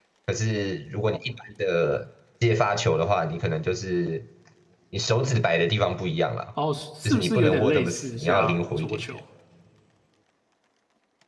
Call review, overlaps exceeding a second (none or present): present